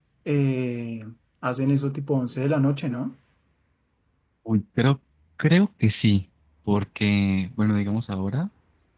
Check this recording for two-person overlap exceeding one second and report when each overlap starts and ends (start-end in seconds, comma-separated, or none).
none